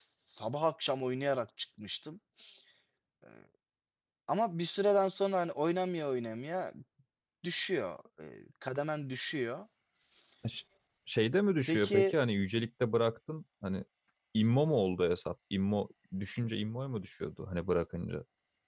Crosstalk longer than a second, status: none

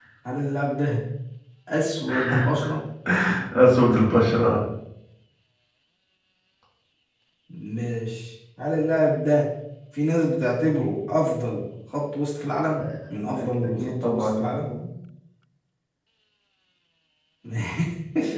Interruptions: present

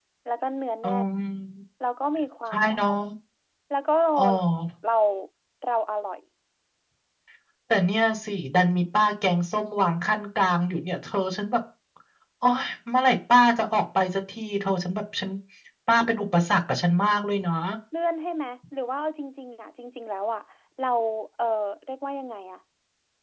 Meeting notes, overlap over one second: none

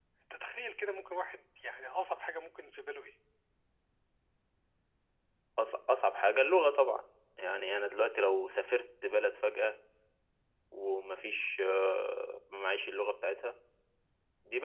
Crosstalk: none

